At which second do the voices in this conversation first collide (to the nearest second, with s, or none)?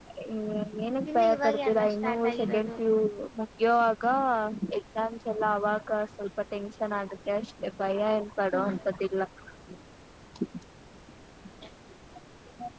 1 s